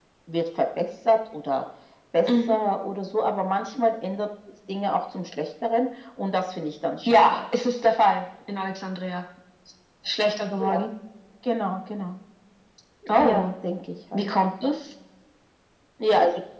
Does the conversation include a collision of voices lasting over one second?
No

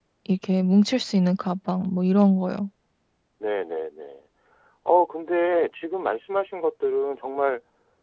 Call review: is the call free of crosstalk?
Yes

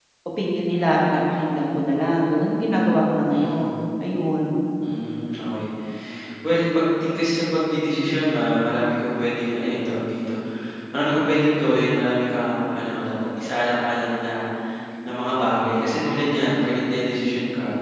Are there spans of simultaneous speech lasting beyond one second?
No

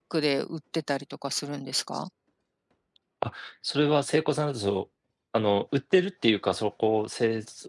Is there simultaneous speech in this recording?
No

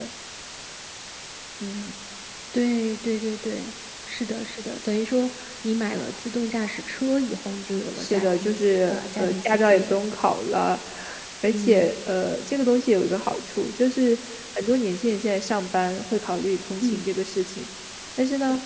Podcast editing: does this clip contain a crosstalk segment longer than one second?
Yes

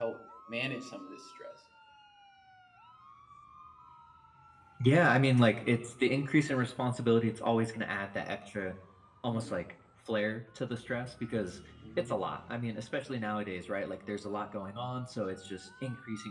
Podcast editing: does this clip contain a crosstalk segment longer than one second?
No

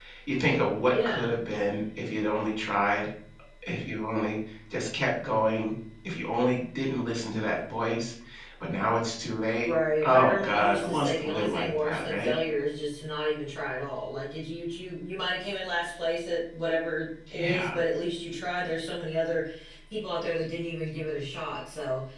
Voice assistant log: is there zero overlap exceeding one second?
No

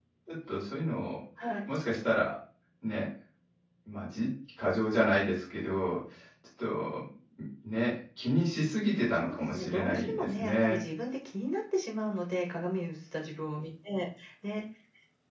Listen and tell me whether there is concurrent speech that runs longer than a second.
Yes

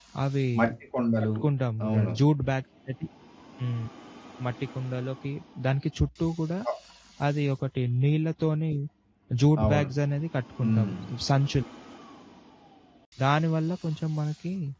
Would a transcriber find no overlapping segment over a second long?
Yes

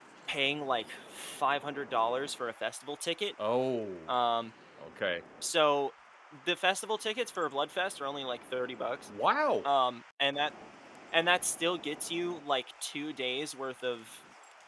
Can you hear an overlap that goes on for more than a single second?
No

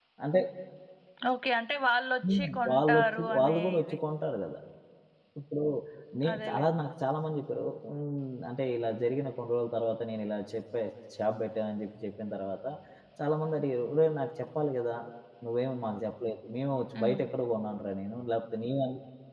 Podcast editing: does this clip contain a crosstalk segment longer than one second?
Yes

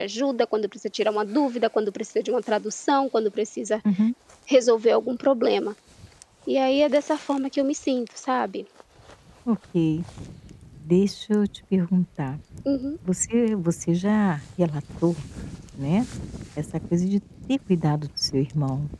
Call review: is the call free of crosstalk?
Yes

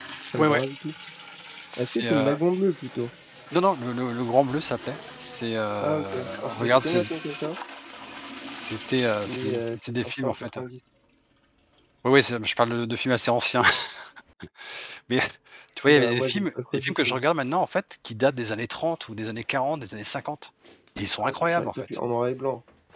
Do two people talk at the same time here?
Yes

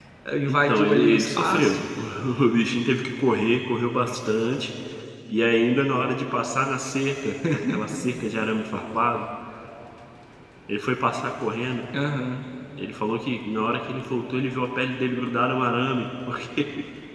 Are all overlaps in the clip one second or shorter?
No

